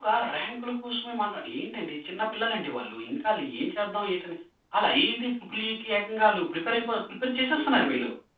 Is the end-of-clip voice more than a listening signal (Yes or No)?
Yes